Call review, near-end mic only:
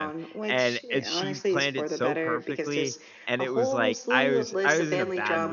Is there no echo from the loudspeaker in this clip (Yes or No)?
No